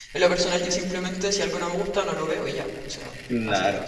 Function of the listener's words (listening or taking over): taking over